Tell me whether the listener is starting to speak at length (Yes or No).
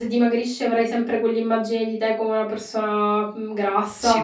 Yes